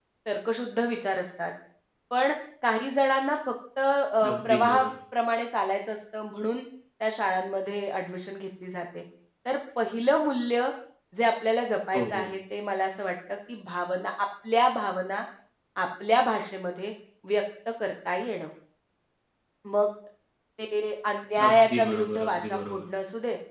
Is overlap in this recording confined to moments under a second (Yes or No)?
No